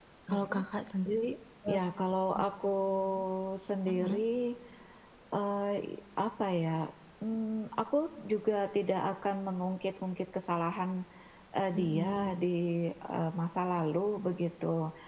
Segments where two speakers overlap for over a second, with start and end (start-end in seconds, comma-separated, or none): none